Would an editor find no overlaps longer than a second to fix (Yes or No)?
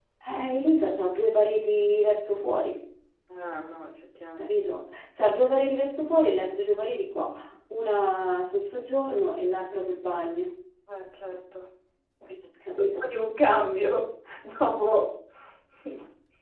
Yes